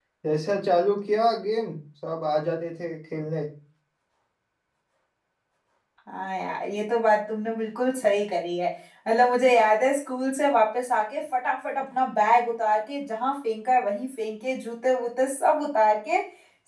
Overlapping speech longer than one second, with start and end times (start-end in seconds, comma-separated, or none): none